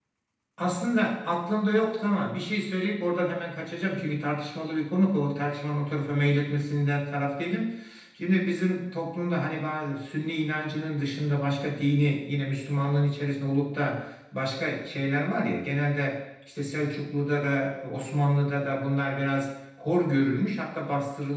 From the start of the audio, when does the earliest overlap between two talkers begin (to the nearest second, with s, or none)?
none